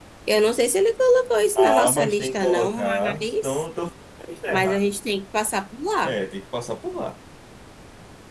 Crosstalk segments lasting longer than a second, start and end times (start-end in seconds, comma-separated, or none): 1.6-3.6